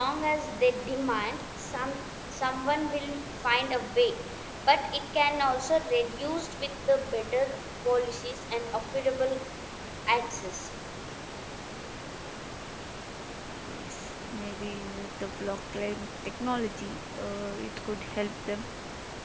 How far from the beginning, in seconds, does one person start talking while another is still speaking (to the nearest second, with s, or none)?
none